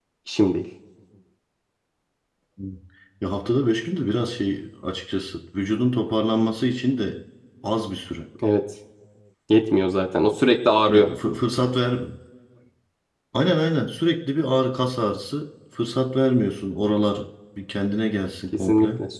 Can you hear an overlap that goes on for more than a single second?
No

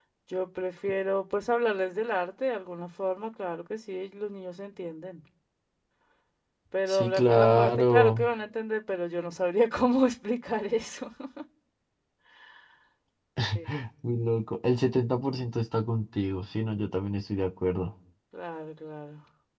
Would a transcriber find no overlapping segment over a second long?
No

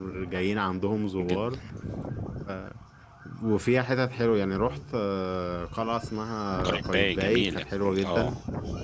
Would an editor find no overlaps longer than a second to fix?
No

